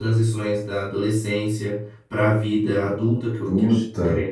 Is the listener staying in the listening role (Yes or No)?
Yes